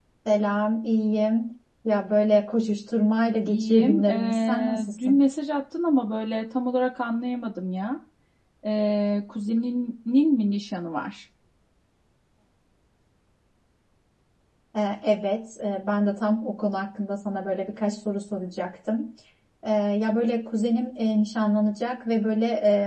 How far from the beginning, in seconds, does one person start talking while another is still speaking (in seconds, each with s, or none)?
3.5 s